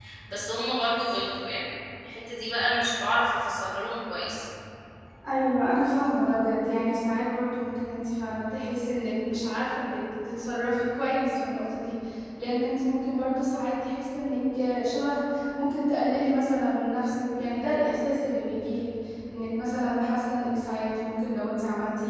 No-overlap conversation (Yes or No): Yes